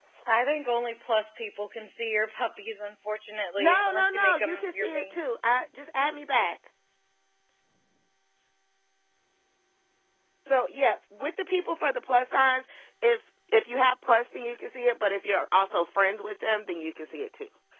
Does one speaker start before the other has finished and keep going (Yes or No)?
Yes